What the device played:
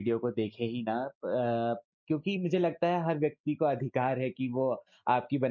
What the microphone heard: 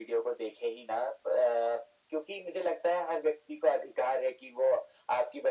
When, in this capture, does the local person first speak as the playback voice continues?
none

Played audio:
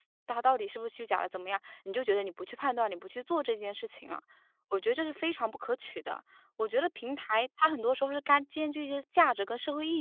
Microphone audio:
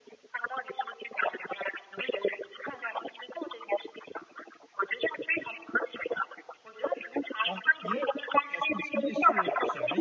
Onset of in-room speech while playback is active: 7 s

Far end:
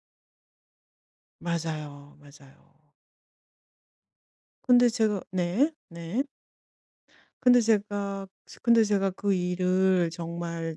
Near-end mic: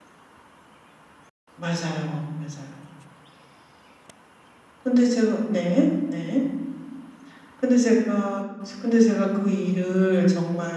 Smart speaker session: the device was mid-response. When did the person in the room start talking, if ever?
none

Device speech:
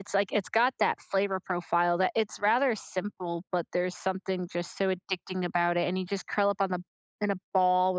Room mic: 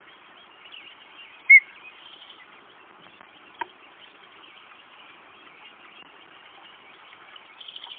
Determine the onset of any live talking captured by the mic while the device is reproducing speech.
none

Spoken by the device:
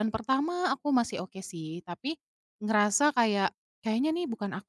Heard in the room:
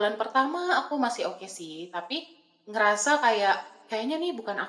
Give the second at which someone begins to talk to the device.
none

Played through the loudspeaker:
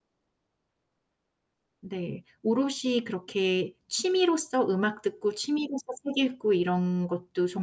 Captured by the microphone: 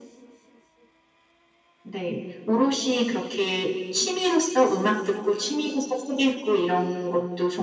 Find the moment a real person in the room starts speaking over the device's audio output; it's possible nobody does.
none

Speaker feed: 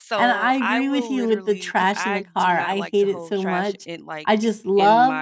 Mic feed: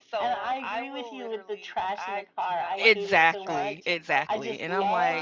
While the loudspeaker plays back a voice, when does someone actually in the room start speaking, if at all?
3 s

